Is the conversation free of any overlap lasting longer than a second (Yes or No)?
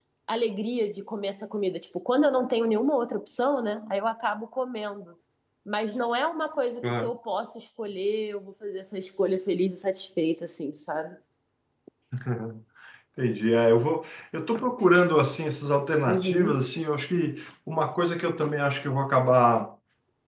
Yes